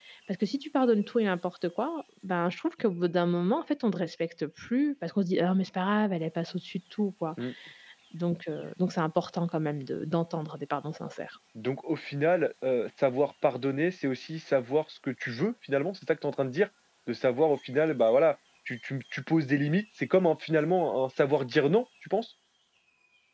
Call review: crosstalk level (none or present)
none